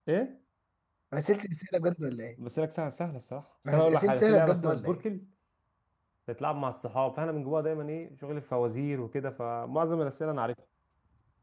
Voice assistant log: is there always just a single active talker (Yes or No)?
No